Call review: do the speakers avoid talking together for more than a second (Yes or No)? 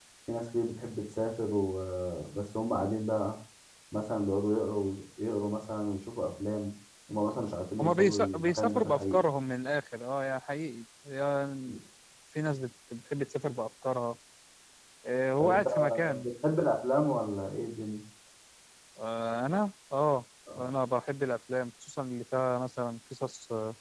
No